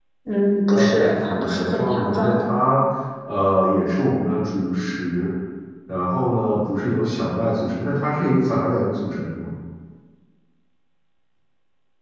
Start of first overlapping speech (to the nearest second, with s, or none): 1 s